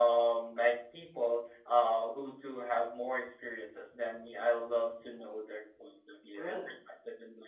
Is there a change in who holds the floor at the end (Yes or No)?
No